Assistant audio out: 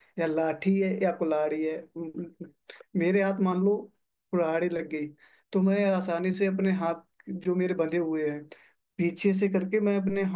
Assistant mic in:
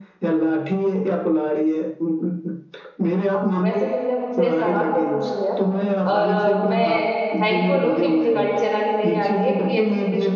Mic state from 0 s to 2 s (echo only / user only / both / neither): echo only